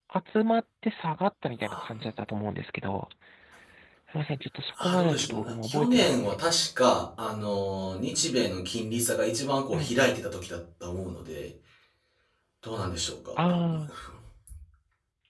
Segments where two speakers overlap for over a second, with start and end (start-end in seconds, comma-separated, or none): 4.8-6.4